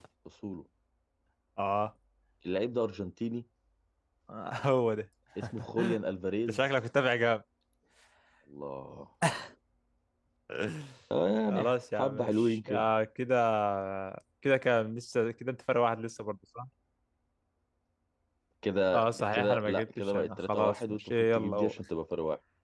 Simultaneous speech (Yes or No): Yes